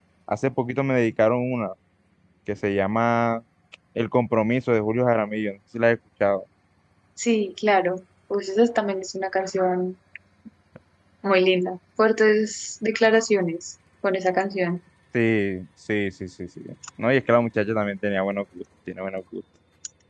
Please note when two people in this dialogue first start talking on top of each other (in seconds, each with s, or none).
none